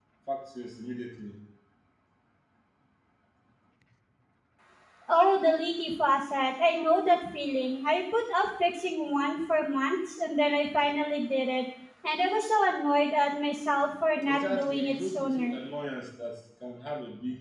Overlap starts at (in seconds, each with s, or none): 14.2 s